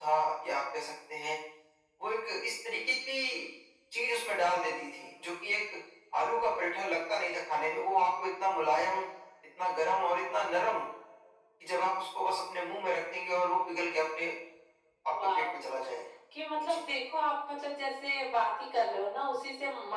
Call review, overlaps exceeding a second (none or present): none